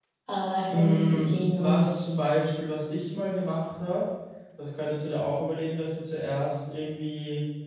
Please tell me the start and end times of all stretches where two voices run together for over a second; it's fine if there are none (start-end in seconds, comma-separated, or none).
0.7-2.0